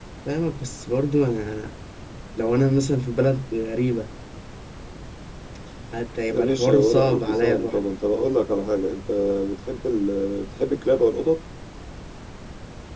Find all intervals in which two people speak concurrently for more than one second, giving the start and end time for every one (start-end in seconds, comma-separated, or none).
6.3-7.9